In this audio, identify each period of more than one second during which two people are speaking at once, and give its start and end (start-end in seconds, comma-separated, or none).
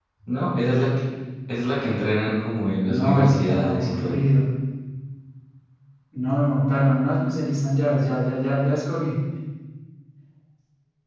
2.9-4.2